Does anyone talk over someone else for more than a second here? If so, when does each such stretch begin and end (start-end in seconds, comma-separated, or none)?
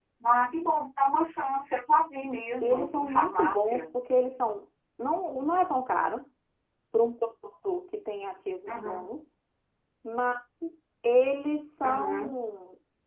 2.6-3.9